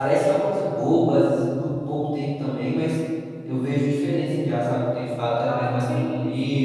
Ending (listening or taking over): taking over